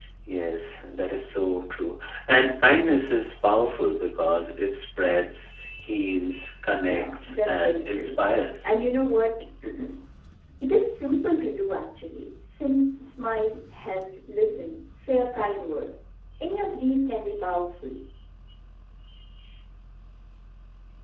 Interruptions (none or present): present